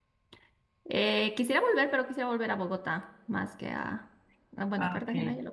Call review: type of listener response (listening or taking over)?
listening